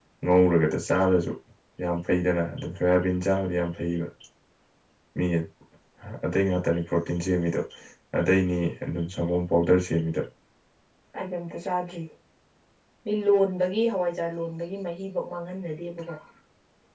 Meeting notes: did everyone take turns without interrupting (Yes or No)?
Yes